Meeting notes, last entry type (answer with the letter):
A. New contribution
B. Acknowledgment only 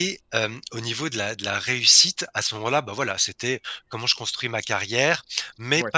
B